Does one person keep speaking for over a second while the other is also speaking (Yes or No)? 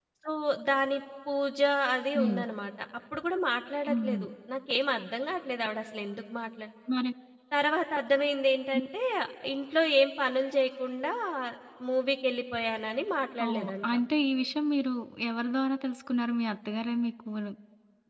No